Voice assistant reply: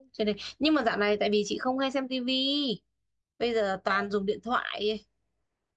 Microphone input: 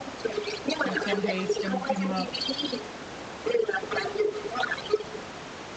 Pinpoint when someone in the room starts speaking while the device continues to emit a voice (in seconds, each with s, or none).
0.8 s